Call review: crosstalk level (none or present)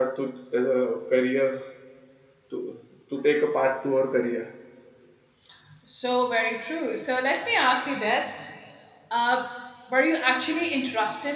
none